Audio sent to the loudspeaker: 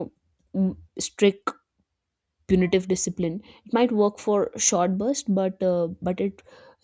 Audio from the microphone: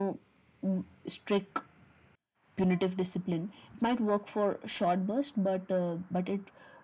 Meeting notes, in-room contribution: none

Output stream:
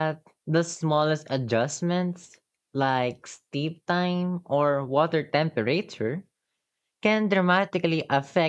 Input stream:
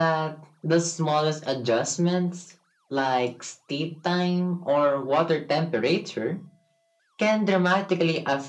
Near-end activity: none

